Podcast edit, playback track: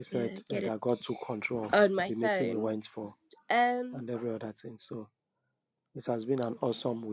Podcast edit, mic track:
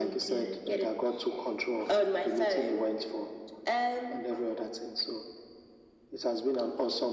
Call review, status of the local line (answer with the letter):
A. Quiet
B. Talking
A